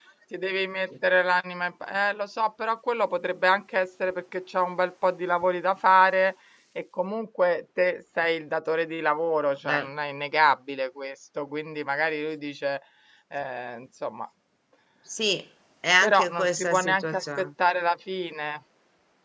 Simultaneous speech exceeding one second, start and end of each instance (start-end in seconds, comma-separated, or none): 16.0-17.5